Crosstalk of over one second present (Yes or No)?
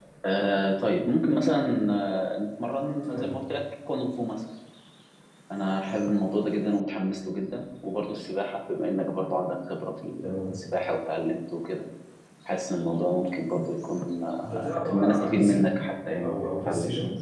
Yes